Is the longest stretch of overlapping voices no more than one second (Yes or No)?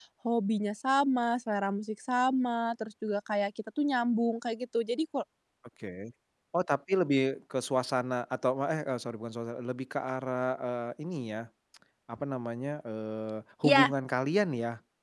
Yes